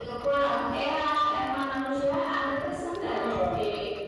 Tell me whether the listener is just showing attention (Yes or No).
Yes